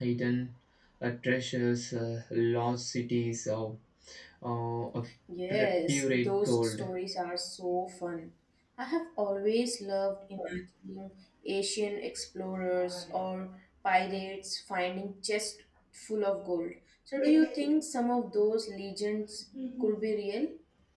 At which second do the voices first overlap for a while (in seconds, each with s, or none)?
5.5 s